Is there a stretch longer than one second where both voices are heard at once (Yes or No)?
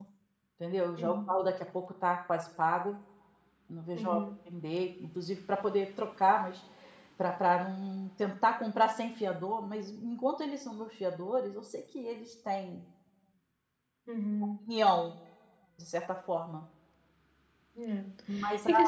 No